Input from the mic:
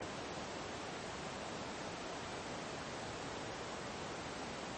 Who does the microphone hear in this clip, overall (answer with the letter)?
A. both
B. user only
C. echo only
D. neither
D